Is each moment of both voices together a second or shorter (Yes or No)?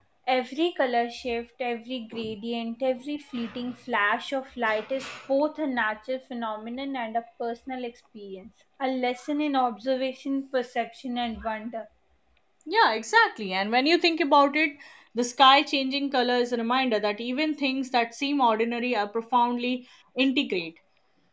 Yes